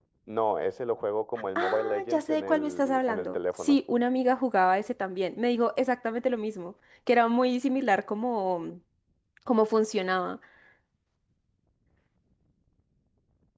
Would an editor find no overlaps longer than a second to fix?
No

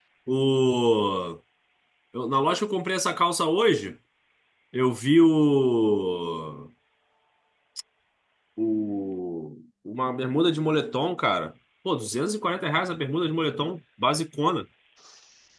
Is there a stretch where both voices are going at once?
No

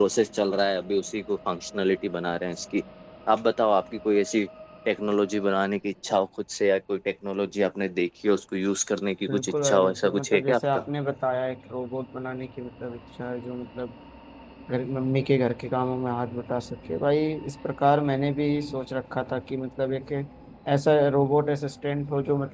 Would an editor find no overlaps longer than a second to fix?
No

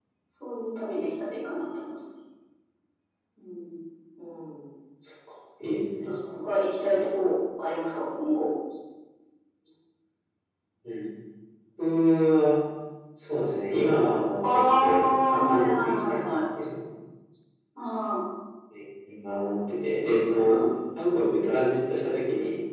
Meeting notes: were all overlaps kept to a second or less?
No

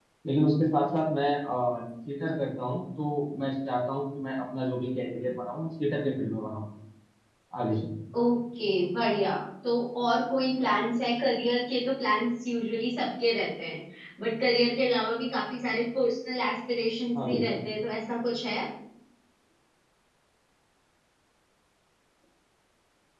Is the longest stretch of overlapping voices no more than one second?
Yes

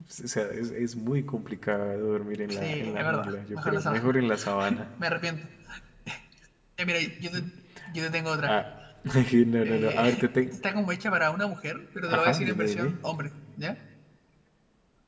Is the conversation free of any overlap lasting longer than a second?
No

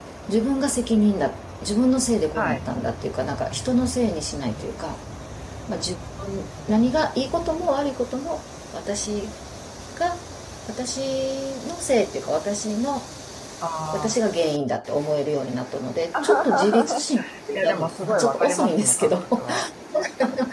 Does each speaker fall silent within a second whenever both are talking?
No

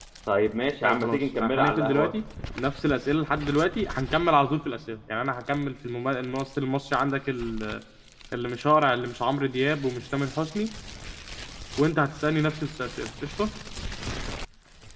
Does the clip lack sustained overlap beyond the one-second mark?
No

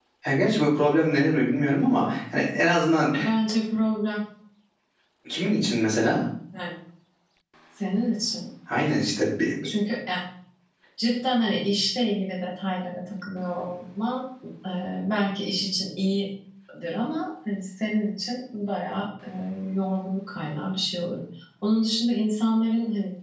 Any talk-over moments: No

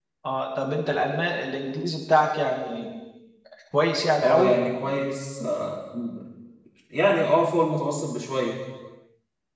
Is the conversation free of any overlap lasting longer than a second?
Yes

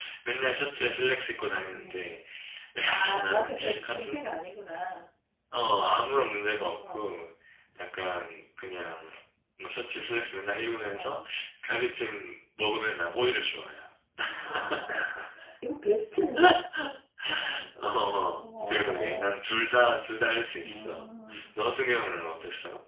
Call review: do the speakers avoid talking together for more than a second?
No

